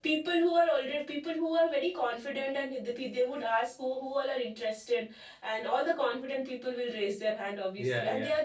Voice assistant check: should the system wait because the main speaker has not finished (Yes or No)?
Yes